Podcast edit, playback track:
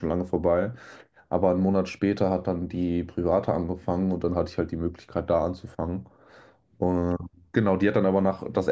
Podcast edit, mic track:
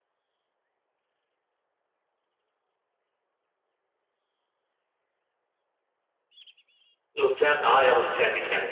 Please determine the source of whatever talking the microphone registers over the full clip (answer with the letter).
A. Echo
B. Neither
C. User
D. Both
C